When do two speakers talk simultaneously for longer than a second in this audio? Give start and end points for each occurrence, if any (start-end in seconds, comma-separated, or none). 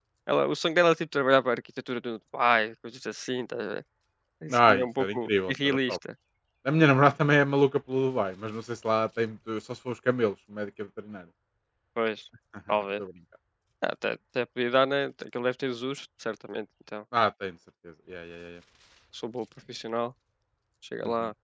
4.5-6.0